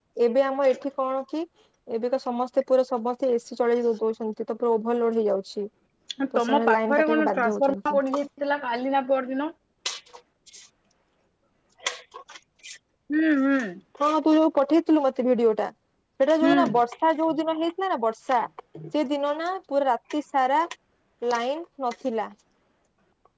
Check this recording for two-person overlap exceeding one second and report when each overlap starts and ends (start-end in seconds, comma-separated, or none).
6.4-8.0